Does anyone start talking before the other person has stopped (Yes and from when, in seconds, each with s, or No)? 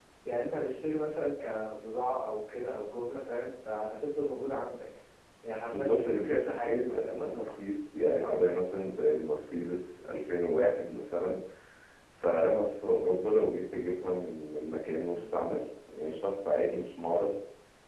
Yes, from 5.7 s